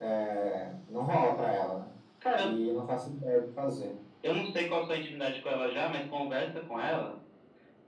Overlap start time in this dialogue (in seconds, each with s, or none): none